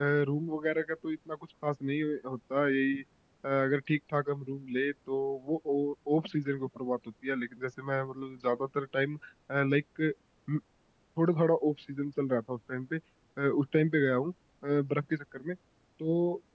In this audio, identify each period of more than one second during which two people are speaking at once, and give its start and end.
none

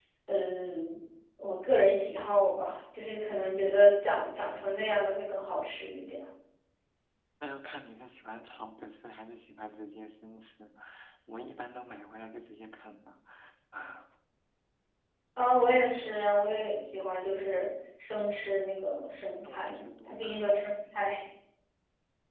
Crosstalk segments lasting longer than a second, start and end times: 19.4-21.1

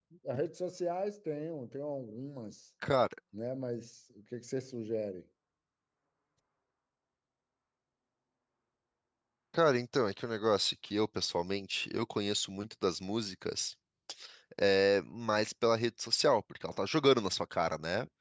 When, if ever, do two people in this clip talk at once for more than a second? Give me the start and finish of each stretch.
none

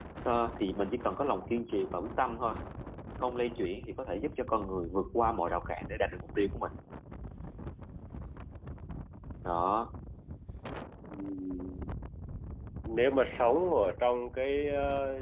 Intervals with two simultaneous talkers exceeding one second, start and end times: none

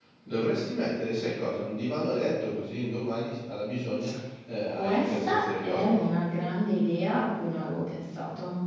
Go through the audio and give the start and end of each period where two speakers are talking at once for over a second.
4.7-6.1

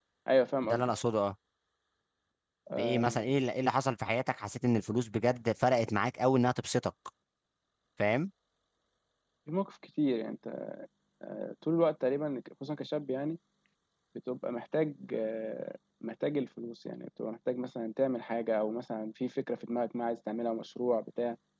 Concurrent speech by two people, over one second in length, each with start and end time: none

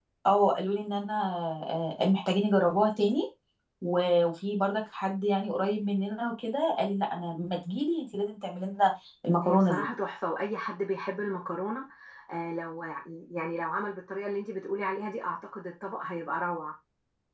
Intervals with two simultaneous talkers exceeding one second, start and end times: none

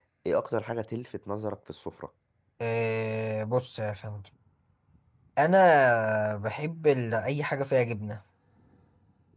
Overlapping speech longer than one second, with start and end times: none

